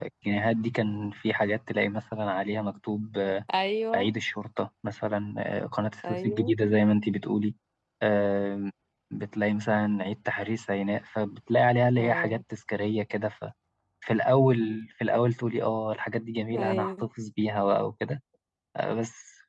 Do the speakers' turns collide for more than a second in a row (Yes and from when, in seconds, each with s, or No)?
No